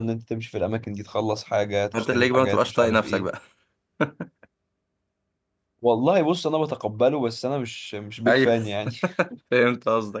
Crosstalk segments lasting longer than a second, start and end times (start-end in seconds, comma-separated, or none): 1.9-3.3